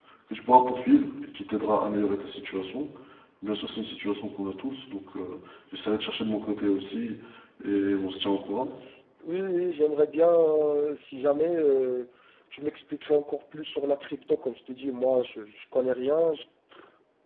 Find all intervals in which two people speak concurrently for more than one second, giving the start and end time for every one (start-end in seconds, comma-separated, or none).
none